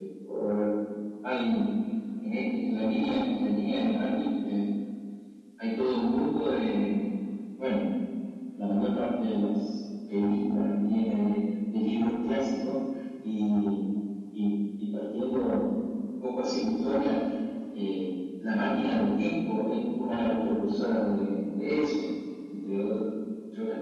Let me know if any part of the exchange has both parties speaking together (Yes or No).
No